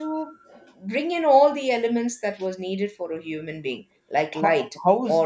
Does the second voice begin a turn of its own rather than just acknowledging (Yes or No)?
Yes